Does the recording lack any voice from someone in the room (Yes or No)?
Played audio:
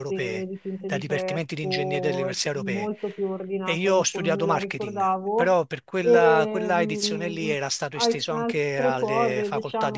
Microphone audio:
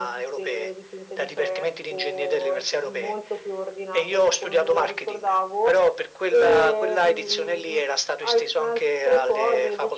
Yes